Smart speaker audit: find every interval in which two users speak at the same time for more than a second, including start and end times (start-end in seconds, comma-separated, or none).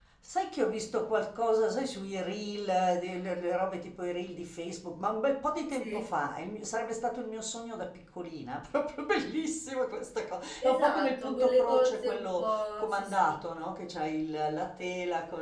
10.6-13.4